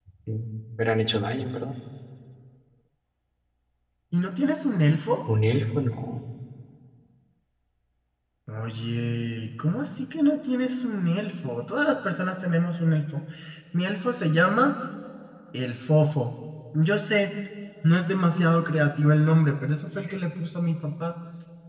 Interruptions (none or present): none